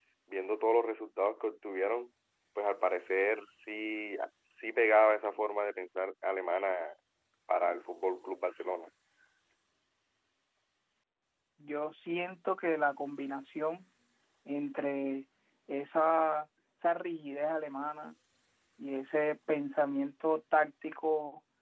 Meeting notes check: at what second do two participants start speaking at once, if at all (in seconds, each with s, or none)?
none